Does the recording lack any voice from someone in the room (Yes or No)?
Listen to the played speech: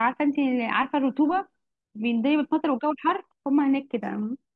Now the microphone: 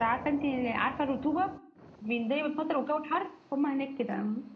Yes